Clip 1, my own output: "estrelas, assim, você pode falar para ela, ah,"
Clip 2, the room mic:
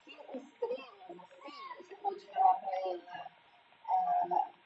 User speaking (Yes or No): No